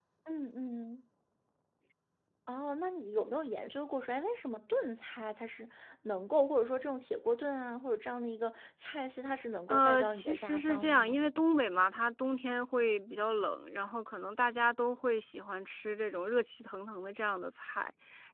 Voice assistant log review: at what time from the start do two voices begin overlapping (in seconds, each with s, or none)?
9.7 s